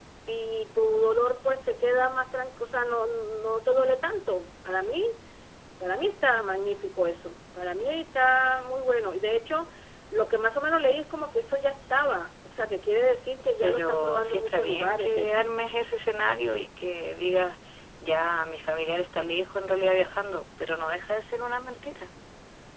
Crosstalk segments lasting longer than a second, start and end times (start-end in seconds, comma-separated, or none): 13.6-15.5